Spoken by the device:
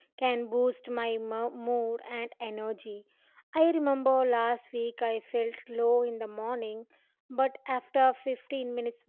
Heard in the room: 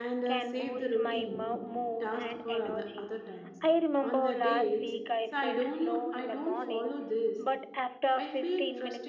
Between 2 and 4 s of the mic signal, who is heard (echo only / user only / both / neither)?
both